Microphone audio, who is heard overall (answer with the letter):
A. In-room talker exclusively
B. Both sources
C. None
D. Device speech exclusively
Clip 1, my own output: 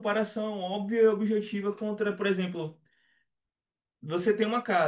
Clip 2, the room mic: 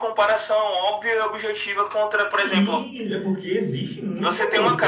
B